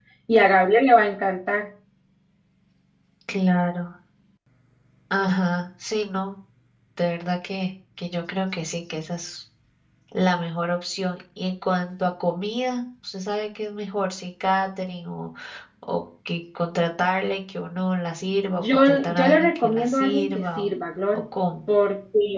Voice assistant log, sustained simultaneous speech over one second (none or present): present